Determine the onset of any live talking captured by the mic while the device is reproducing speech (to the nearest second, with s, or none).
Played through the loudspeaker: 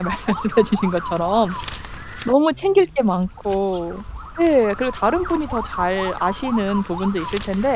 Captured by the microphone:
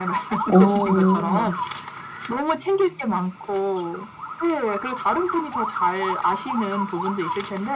0 s